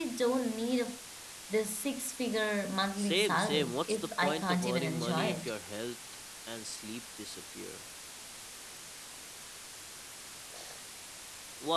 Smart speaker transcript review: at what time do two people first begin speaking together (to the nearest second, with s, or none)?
3 s